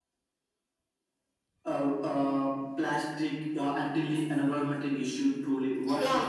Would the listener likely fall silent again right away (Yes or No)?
No